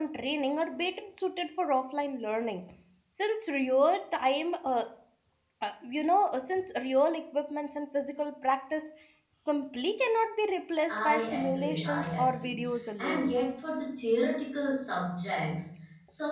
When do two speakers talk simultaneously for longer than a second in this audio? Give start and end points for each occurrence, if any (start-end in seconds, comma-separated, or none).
10.9-12.6